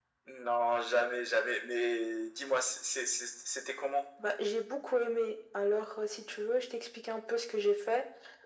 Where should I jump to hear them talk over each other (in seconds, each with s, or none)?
none